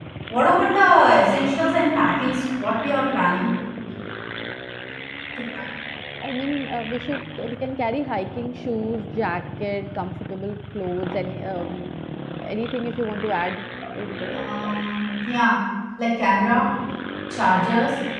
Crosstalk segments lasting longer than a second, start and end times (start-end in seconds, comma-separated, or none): none